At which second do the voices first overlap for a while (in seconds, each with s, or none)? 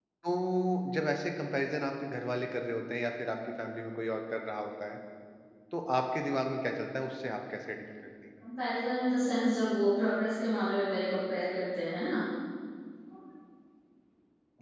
none